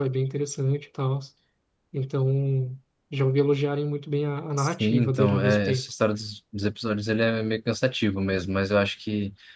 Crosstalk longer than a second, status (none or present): present